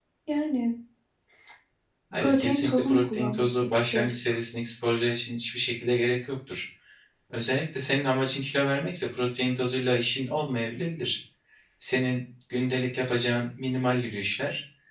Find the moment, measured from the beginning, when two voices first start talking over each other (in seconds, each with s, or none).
2.2 s